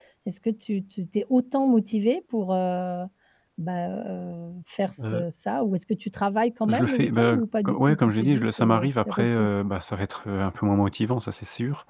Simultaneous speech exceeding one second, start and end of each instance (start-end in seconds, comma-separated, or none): 6.7-9.5